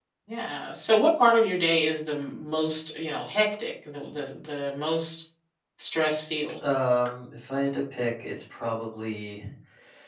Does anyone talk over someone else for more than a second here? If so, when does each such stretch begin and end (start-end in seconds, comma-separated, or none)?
none